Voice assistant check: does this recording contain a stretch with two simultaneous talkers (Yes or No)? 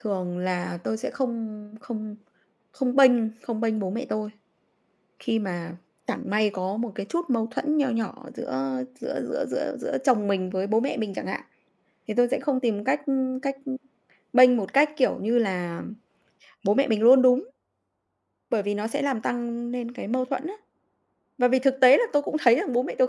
No